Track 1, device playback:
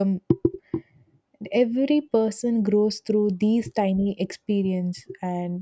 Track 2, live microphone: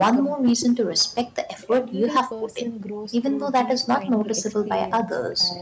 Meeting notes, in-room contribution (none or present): present